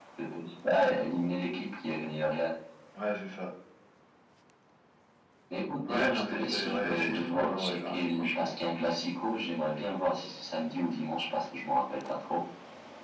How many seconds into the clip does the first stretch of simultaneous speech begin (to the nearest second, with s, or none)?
6 s